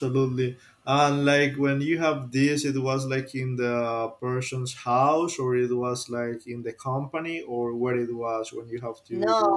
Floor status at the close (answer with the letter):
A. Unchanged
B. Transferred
B